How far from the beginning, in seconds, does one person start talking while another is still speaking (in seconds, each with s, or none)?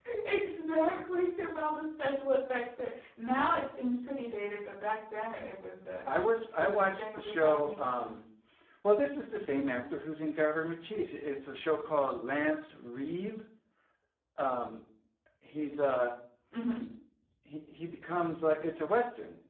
6.5 s